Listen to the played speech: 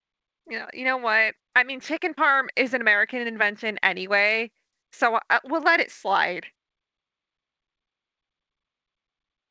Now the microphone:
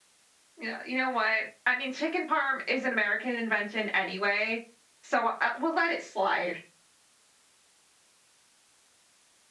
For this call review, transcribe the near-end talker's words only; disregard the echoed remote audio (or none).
none